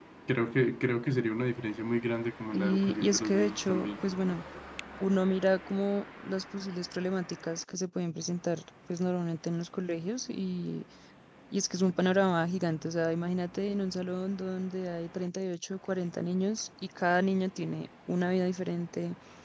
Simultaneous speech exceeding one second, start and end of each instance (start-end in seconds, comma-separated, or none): 2.5-3.9